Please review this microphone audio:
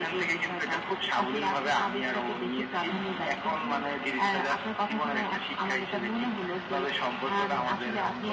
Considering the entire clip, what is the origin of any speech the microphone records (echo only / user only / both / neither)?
echo only